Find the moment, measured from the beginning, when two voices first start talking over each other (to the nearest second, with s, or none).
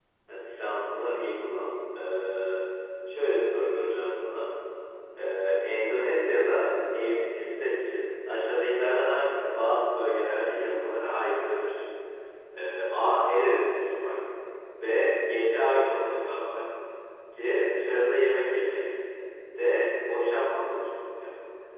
none